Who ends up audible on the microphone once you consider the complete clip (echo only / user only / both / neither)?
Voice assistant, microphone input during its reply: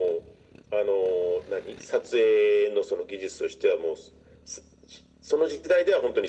echo only